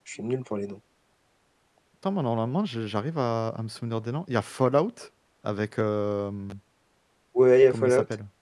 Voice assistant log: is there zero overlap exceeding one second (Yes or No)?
Yes